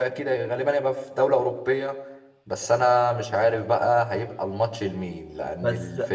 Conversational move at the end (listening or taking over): listening